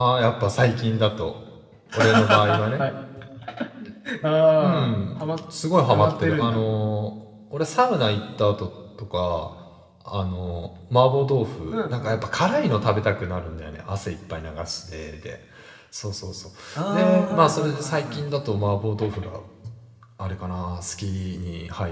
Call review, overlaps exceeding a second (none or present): present